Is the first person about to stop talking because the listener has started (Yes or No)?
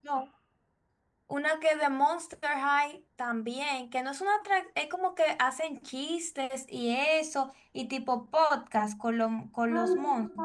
Yes